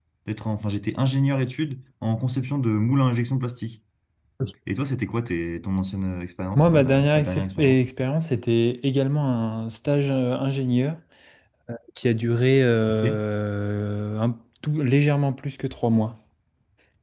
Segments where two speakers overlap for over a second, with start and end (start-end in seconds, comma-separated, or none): 6.5-7.8